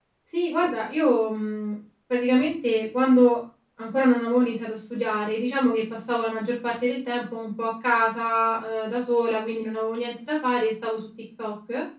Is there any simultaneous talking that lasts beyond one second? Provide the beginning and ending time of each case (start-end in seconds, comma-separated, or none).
none